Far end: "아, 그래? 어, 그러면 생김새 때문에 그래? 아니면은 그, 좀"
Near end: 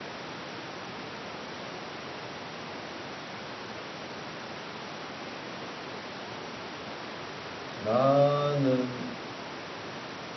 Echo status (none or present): none